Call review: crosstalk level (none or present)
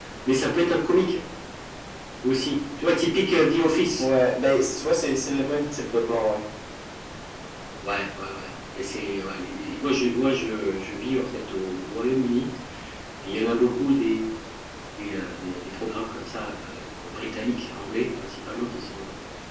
none